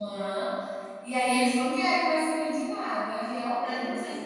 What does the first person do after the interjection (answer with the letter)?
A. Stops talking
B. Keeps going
A